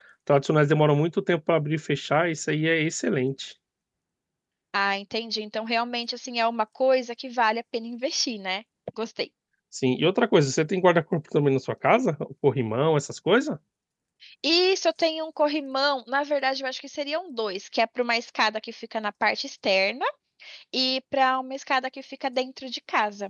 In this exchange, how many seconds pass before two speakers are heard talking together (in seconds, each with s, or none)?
none